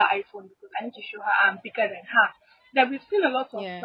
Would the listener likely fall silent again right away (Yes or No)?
Yes